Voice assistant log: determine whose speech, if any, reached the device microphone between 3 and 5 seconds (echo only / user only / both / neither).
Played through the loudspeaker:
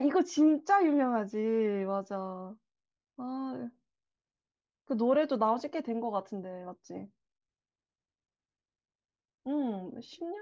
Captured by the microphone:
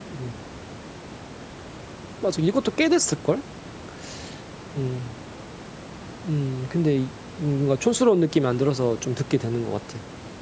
user only